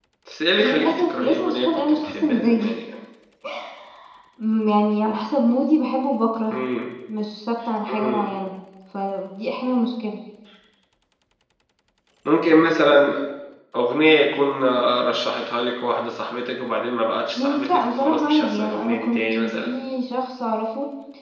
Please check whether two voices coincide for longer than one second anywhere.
Yes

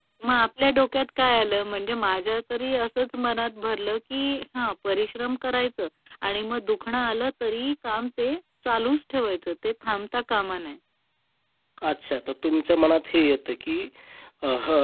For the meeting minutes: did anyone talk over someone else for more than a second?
No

